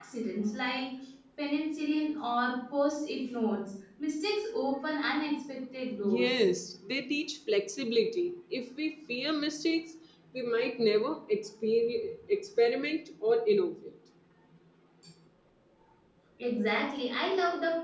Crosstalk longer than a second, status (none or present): none